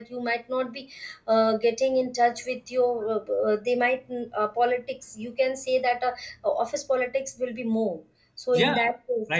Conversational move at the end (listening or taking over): listening